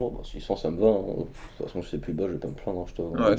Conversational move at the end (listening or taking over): taking over